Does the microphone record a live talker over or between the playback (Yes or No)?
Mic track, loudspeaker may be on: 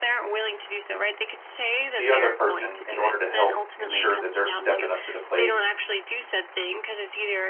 Yes